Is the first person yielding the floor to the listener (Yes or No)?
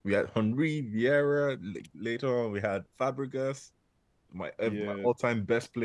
No